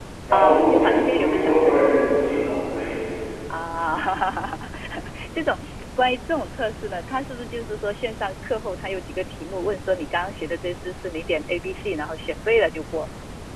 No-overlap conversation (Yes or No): No